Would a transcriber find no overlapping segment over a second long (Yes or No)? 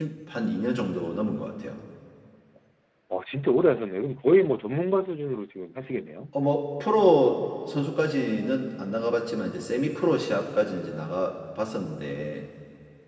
Yes